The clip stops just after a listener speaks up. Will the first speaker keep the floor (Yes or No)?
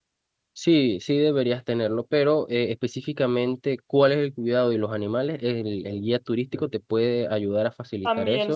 No